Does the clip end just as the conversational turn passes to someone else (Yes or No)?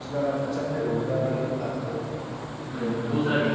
Yes